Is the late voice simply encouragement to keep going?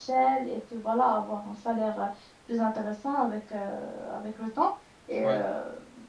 Yes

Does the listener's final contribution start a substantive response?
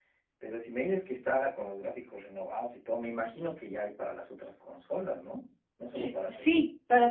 Yes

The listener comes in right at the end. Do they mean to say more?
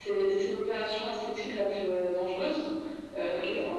No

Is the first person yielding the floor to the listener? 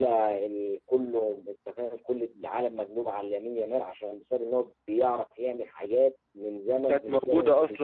Yes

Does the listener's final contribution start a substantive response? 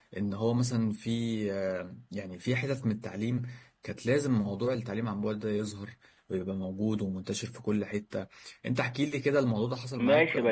Yes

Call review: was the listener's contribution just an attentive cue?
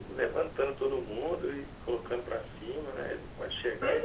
No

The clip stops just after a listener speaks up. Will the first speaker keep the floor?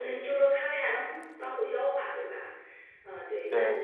No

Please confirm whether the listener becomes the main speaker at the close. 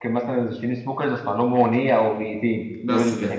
No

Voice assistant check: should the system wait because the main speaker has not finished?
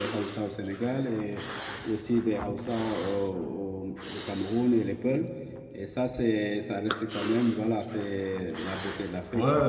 No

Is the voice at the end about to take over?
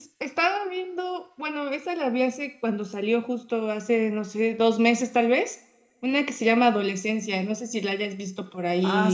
Yes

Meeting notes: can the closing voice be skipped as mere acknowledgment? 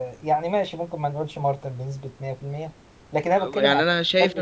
No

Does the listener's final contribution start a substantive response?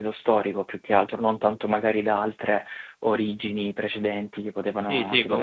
Yes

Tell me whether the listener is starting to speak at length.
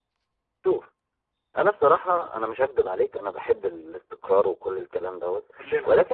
No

